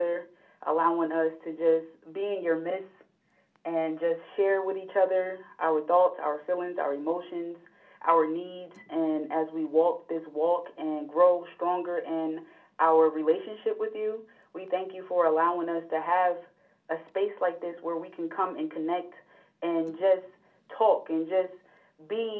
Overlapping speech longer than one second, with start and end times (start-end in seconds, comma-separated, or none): none